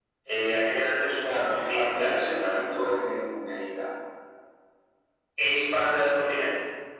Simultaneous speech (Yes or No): Yes